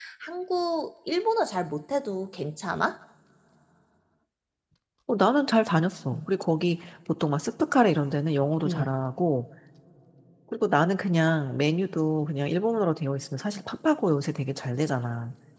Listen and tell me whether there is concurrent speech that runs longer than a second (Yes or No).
No